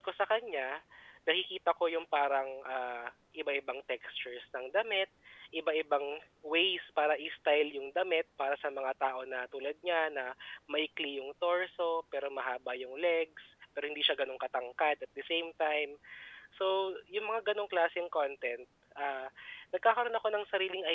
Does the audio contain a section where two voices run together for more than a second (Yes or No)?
No